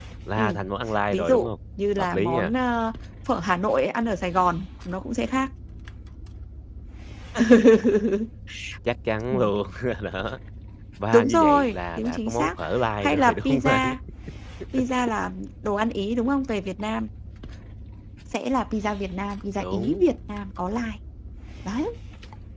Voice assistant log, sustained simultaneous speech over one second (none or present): present